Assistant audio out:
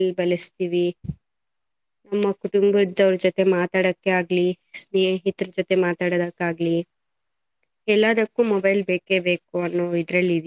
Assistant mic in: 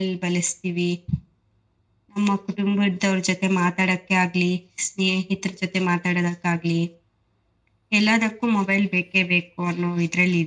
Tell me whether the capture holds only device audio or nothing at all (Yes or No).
Yes